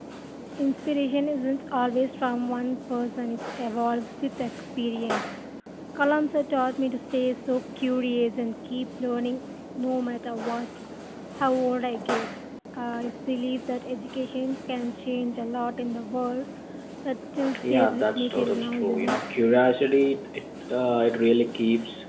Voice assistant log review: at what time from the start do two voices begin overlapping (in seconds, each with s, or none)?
17.6 s